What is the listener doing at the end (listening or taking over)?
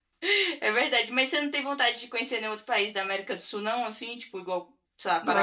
taking over